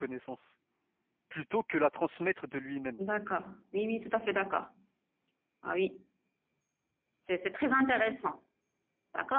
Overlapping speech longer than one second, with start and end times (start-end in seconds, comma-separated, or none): none